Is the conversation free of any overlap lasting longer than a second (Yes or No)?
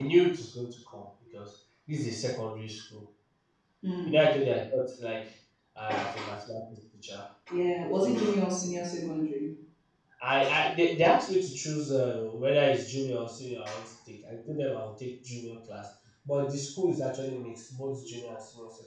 Yes